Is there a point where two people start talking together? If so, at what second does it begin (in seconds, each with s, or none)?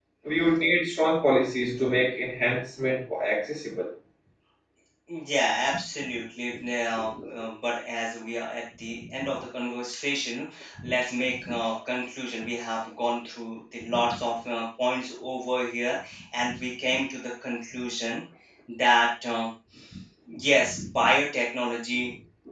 none